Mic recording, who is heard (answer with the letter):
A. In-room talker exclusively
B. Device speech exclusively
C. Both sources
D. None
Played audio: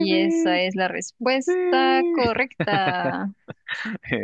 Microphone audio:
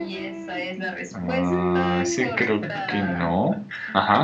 C